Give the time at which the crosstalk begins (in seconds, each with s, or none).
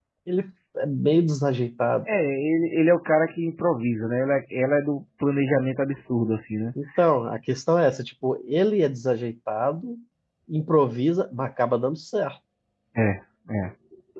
none